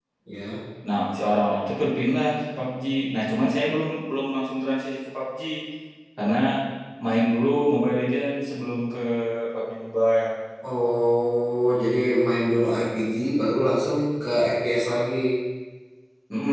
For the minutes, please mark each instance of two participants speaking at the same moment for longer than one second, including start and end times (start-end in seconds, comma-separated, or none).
none